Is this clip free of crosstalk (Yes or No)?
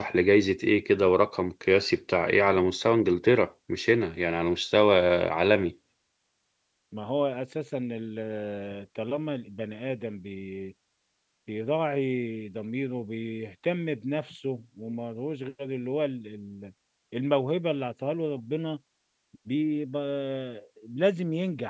Yes